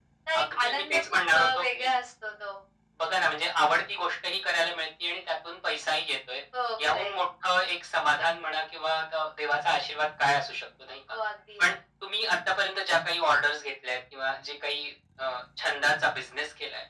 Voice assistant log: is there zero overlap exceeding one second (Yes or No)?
No